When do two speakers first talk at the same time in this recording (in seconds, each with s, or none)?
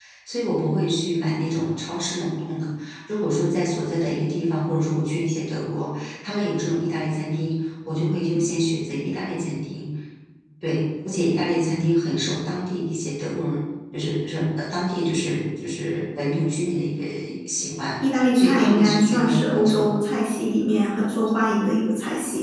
18.3 s